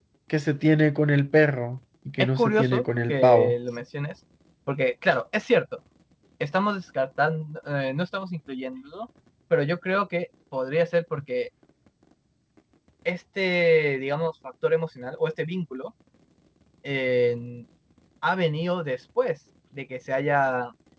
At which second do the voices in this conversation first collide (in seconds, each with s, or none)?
2.2 s